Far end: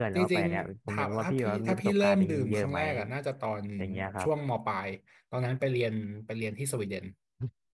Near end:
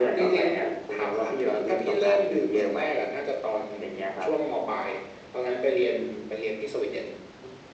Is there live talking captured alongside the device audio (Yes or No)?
No